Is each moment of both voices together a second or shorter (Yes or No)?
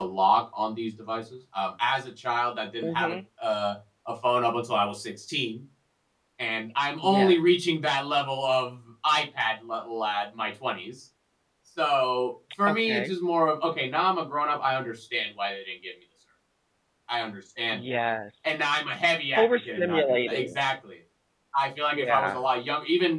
No